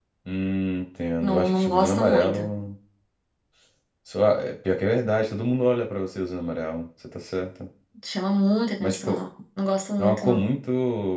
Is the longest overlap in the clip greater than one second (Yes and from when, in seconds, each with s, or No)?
Yes, from 1.2 s